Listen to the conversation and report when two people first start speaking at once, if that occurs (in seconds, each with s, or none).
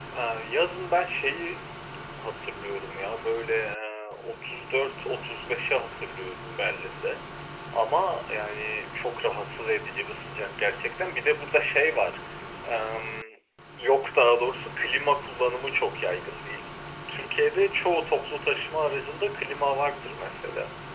none